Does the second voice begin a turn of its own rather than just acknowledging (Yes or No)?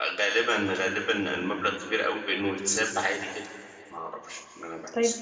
Yes